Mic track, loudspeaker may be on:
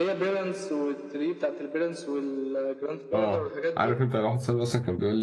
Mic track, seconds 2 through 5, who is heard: both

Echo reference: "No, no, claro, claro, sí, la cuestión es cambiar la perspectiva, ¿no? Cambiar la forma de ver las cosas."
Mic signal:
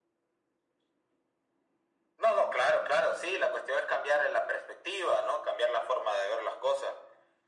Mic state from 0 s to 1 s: neither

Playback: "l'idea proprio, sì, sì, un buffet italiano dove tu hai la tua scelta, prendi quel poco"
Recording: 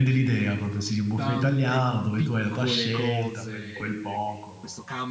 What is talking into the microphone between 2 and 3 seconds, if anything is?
both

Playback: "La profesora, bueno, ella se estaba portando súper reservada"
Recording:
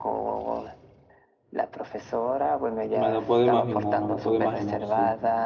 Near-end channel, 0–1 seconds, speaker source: echo only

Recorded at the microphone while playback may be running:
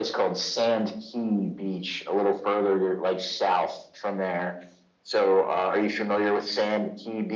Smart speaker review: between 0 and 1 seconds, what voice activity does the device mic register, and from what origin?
echo only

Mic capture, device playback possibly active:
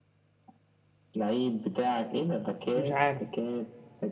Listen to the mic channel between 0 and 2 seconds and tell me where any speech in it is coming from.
echo only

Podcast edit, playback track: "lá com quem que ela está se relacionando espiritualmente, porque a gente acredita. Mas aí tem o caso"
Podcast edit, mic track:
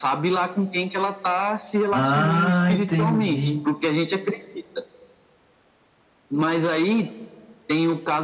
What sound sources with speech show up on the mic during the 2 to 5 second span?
both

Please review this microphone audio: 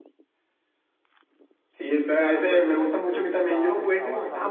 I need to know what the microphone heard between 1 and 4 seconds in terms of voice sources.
both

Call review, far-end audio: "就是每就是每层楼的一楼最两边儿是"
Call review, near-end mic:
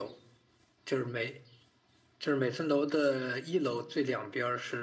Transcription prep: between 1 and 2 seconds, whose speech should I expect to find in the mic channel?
echo only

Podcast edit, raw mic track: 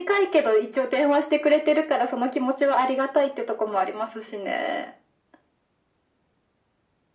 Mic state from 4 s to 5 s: echo only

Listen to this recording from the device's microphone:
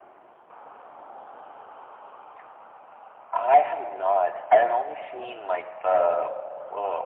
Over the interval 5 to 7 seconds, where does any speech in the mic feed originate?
echo only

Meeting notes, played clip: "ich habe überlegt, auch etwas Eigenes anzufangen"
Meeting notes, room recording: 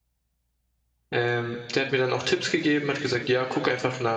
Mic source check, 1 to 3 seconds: user only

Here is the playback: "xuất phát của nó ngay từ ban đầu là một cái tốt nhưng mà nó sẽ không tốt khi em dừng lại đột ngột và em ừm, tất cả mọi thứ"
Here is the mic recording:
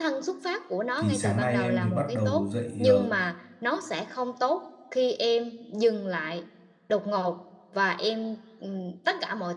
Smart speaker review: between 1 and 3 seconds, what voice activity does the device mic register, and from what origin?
both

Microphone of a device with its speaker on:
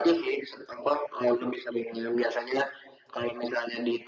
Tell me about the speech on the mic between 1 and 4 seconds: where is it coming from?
echo only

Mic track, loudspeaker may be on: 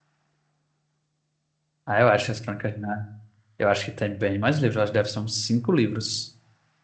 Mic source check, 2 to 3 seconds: user only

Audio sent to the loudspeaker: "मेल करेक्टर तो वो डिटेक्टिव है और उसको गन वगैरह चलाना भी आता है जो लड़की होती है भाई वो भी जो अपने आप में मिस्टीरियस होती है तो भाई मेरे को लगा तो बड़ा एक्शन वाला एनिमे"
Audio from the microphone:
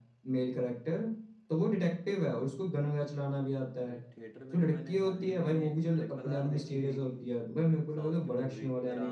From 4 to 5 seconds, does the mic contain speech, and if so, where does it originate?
both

